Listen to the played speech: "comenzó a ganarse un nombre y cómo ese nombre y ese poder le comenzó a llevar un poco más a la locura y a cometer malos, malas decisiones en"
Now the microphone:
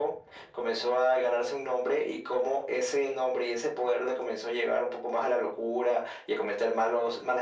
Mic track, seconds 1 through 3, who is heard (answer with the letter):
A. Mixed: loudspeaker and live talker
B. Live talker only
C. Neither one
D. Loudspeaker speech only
D